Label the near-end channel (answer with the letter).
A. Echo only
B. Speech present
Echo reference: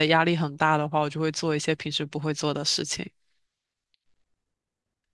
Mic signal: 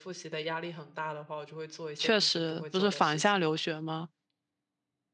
B